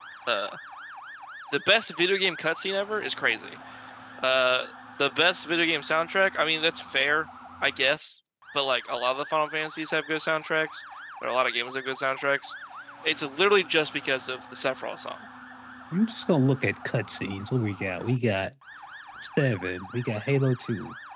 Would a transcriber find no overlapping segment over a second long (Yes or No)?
Yes